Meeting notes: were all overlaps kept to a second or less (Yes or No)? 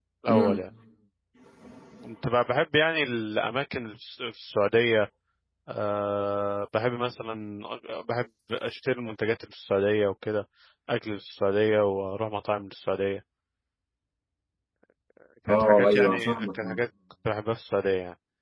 No